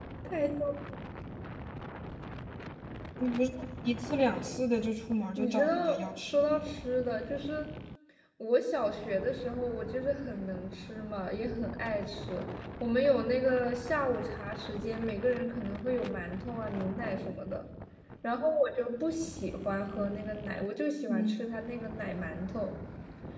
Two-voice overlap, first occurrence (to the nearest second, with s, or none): 5 s